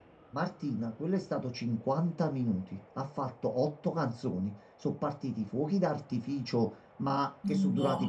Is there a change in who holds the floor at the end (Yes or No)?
No